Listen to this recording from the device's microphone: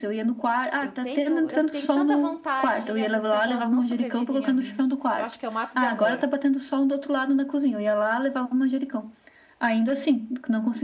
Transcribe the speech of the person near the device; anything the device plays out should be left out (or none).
Eu tenho, eu tenho tanta vontade e ao mesmo tempo elas não sobrevivem a mim. Eu acho que eu mato de amor.